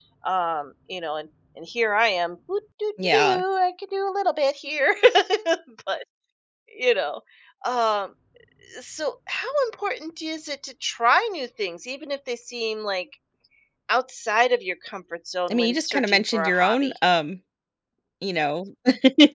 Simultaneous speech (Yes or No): Yes